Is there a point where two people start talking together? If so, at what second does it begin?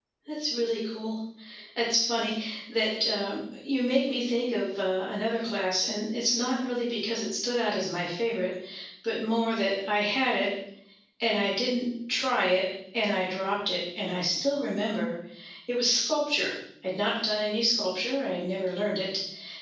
none

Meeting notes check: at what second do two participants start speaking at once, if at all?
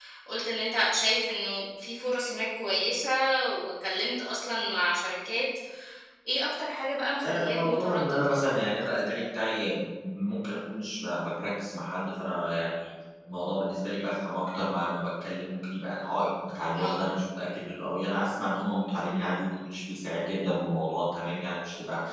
7 s

